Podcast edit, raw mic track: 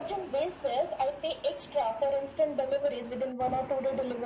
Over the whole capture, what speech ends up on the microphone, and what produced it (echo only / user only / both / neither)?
echo only